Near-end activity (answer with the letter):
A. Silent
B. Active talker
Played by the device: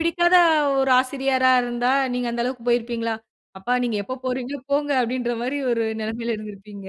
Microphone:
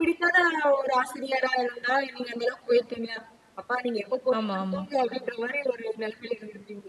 B